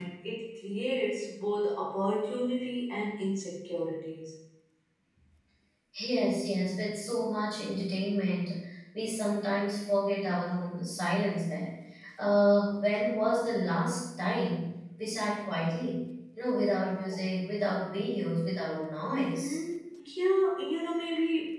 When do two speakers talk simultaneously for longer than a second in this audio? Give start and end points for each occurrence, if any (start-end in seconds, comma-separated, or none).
none